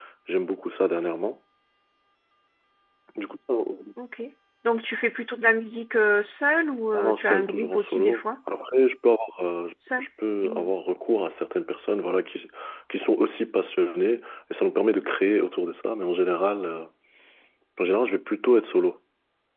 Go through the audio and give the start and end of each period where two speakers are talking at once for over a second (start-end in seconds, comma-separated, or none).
6.9-8.2